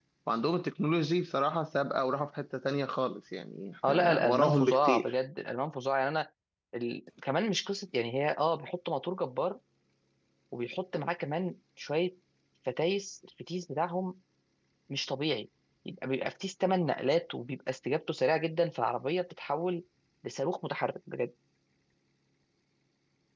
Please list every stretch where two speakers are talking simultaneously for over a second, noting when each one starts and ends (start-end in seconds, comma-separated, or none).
3.9-5.2